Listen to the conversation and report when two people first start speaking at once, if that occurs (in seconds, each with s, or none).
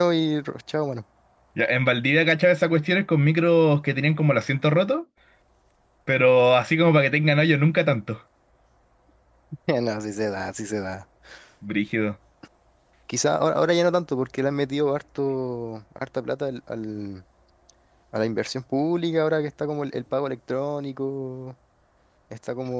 none